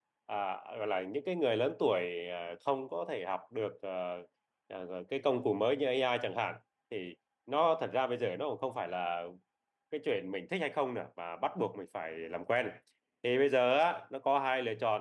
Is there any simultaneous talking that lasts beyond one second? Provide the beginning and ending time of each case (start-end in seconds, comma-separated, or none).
none